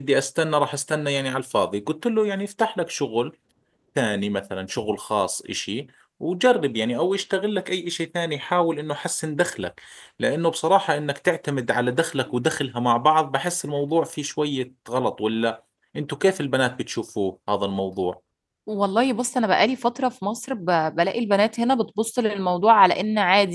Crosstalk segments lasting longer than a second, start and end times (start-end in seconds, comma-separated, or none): none